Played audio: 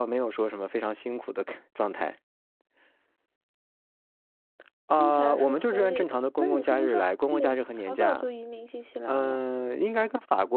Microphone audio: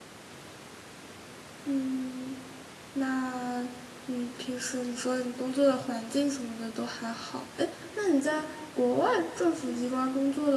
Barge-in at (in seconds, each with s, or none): 1.6 s